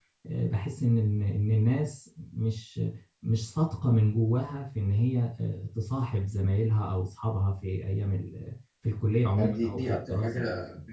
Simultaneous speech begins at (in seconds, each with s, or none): 9.1 s